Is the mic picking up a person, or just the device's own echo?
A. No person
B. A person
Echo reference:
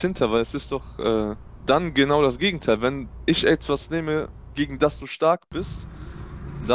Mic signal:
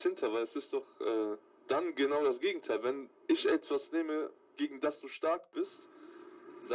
A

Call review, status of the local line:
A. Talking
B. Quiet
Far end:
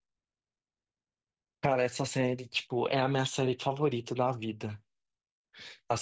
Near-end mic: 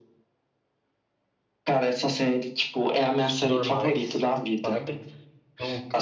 A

